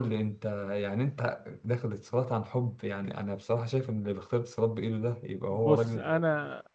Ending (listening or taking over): taking over